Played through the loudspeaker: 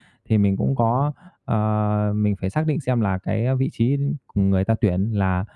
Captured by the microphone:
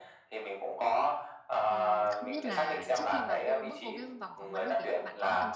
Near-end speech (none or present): present